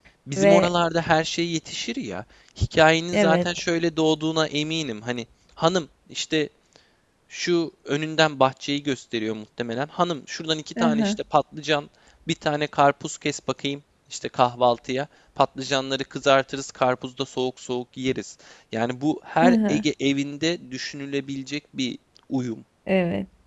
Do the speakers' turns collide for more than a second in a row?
No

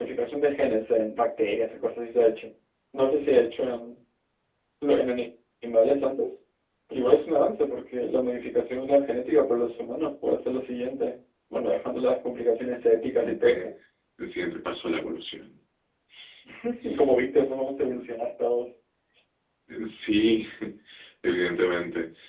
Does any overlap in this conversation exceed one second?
No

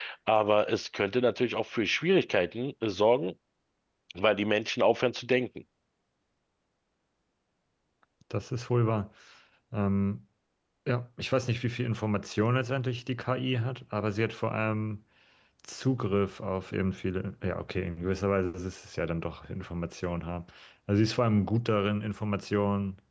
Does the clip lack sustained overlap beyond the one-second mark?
Yes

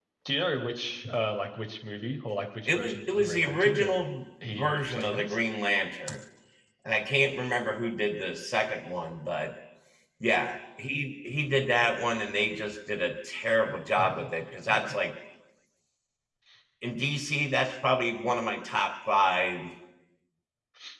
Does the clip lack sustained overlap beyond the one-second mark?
No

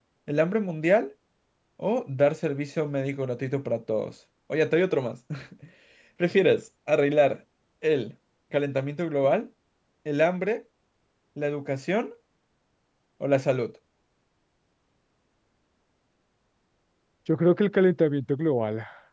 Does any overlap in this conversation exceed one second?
No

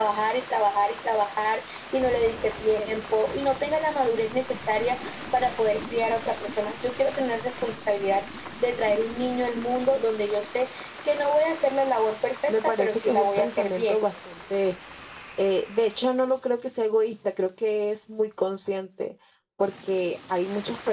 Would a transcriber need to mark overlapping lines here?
Yes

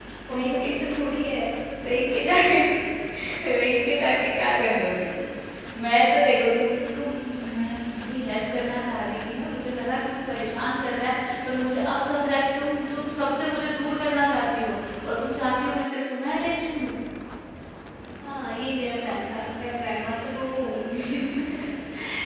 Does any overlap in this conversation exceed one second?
No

